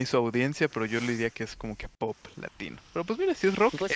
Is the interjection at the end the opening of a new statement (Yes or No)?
Yes